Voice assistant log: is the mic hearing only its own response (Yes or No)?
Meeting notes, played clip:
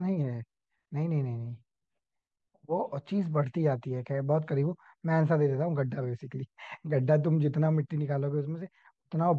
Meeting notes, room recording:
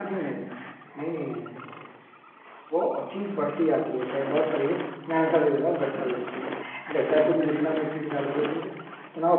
Yes